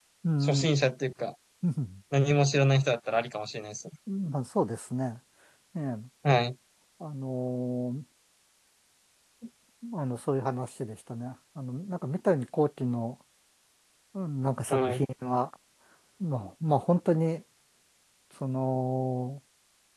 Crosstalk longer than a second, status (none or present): none